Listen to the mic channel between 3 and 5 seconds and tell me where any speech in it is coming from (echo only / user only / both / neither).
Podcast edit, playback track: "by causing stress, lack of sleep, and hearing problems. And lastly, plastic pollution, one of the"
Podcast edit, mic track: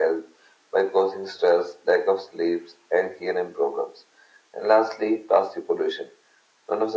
echo only